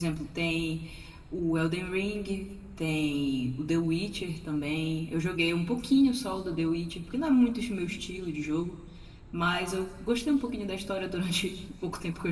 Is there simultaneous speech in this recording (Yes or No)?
No